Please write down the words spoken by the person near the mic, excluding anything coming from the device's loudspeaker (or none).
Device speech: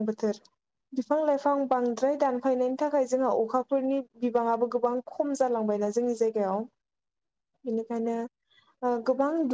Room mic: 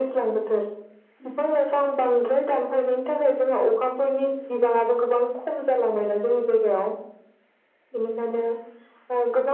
none